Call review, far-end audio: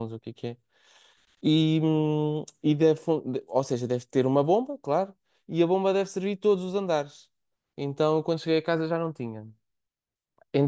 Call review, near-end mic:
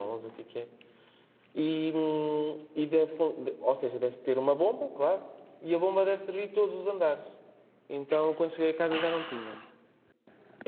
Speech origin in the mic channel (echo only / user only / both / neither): echo only